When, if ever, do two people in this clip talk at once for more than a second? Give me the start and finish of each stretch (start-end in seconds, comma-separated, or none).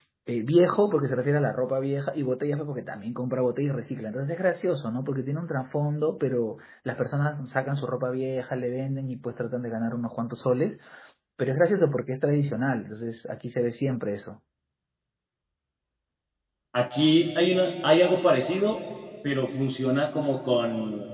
none